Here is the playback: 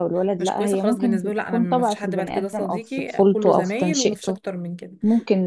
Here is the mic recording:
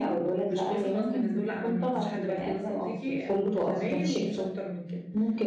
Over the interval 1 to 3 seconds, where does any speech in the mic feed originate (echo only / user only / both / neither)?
echo only